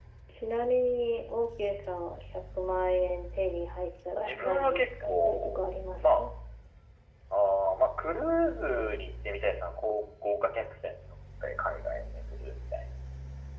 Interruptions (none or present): present